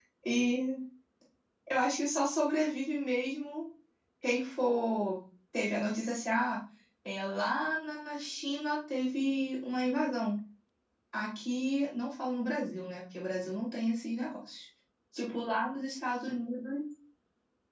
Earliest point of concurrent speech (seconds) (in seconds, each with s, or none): none